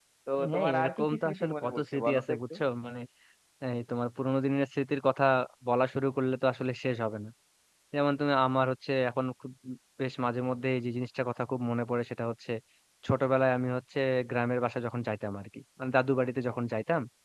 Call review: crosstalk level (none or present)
present